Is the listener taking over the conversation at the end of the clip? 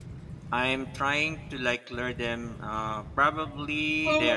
Yes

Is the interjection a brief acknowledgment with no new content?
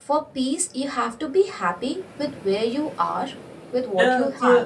No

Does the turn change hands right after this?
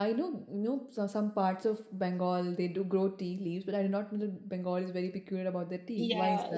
Yes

